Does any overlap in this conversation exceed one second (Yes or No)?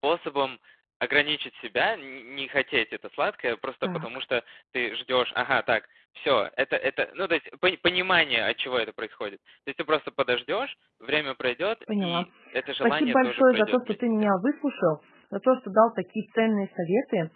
Yes